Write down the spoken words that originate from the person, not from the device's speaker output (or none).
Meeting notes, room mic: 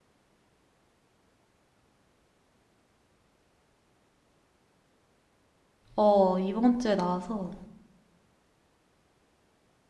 어, 이번 주에 나와서